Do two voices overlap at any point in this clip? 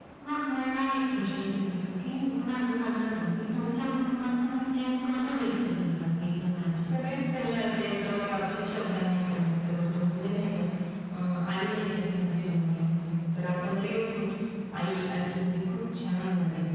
No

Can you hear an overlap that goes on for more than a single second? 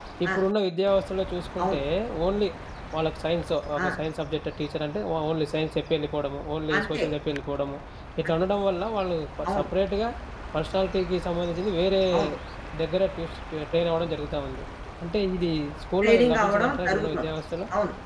Yes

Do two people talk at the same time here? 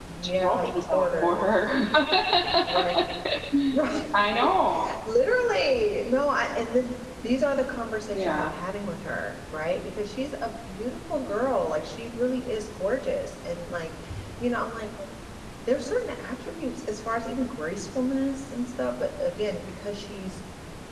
Yes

